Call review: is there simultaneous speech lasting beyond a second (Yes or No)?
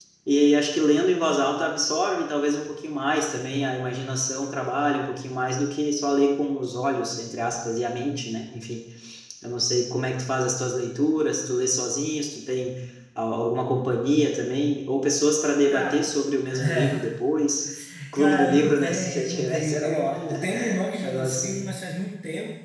Yes